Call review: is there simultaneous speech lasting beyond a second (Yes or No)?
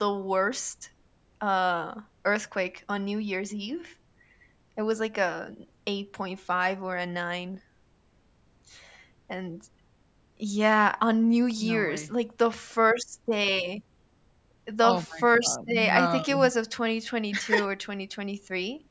Yes